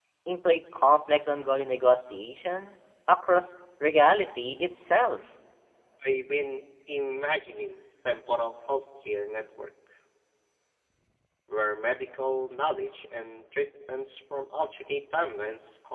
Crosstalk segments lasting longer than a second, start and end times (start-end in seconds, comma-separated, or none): none